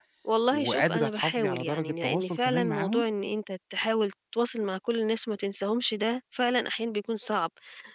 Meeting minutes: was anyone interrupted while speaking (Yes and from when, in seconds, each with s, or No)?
Yes, from 0.5 s